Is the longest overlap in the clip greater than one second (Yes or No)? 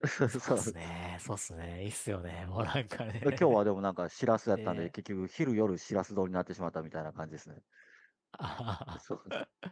No